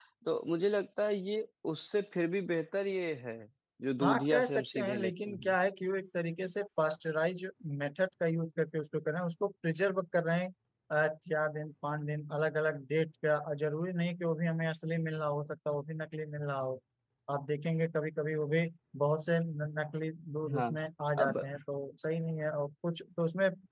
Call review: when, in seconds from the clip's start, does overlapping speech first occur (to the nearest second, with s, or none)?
4 s